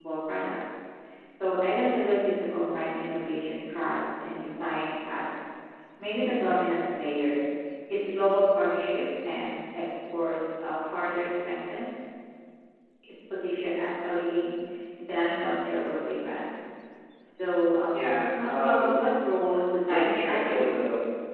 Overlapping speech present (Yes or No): Yes